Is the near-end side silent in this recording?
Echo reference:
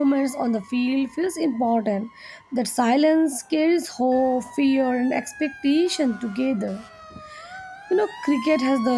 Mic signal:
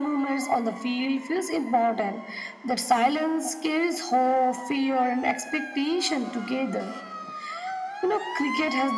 Yes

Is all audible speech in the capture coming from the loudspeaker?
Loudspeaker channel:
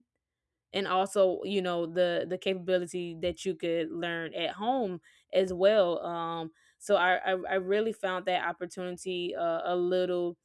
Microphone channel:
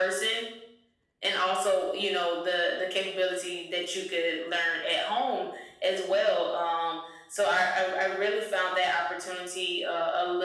Yes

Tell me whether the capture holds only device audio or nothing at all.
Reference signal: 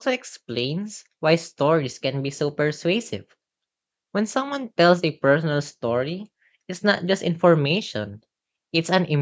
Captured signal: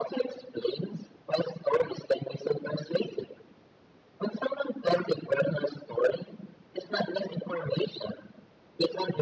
Yes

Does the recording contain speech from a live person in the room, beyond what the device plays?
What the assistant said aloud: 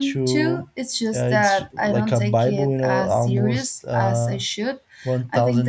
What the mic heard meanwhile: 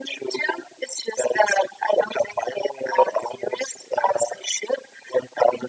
No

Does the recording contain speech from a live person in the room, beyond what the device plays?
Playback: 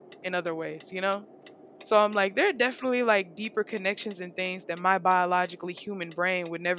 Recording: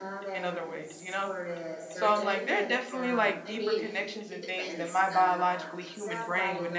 Yes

